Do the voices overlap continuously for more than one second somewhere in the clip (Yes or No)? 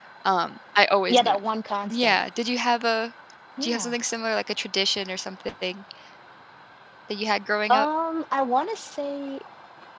No